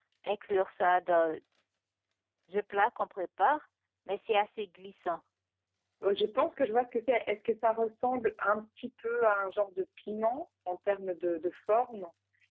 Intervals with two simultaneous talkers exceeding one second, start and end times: none

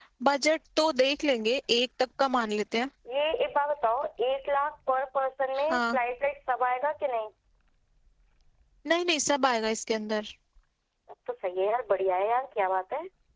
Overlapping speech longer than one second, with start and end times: none

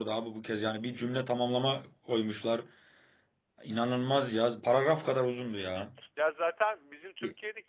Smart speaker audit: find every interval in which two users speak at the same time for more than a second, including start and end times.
none

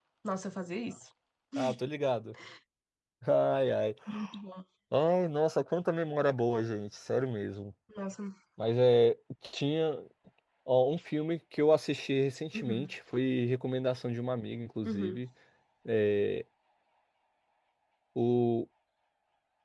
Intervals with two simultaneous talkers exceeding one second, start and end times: none

